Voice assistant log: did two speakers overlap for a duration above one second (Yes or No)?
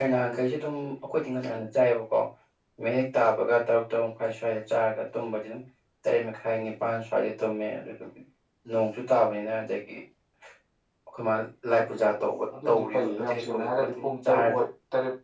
Yes